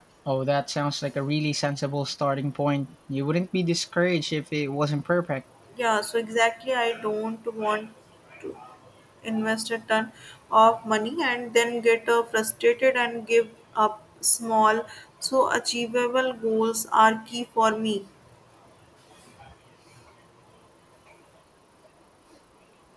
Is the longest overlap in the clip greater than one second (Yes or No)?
No